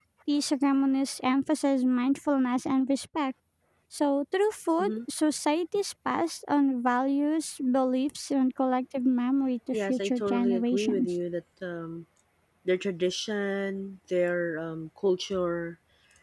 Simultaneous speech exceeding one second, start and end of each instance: 9.7-11.1

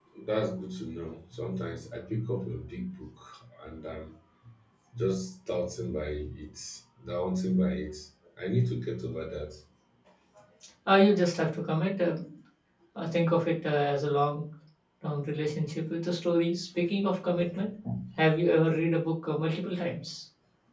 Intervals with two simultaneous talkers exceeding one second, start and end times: none

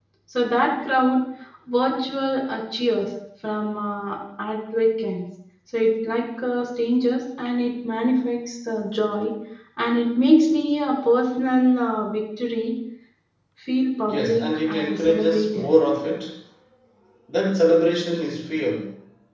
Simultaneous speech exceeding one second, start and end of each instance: 14.1-15.7

